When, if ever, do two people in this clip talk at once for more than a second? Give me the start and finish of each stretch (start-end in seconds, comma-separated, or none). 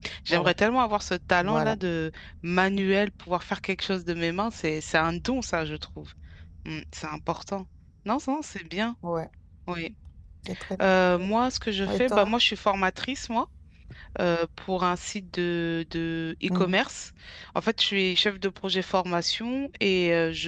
none